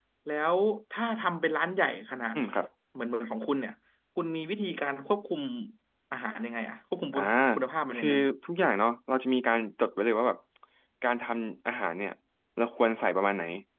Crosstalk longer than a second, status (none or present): none